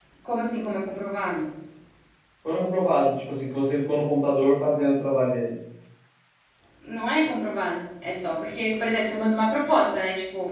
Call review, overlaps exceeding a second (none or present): none